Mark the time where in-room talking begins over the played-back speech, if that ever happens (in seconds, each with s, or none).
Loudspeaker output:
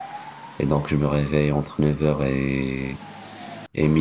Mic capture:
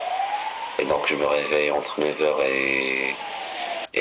none